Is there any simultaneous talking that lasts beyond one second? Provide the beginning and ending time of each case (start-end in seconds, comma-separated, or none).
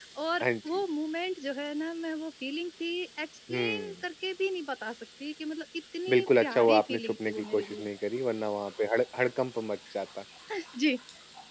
6.1-7.9